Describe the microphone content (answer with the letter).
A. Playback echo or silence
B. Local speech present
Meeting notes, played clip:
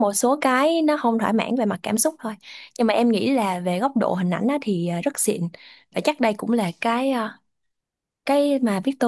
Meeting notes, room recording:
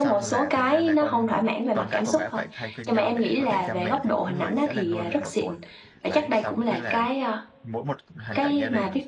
B